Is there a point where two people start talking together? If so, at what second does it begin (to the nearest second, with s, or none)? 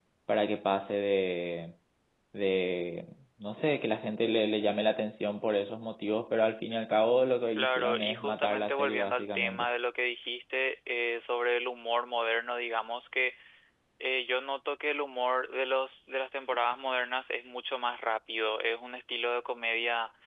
8 s